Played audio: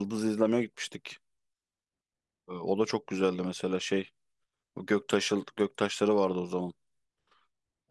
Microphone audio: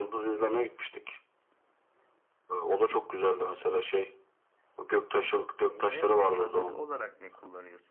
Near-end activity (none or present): present